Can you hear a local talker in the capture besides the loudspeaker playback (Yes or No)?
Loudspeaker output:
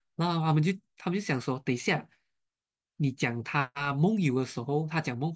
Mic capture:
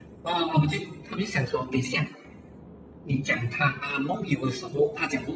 No